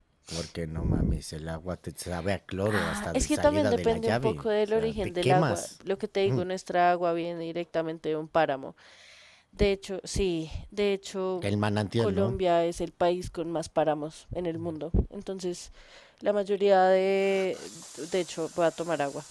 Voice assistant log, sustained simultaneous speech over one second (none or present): present